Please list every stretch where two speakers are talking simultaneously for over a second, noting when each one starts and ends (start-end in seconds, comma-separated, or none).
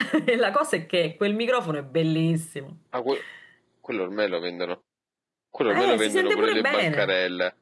5.7-7.1